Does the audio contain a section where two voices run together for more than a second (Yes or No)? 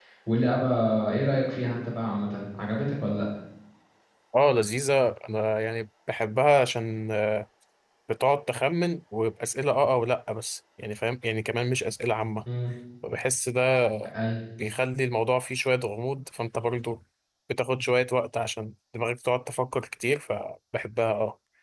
No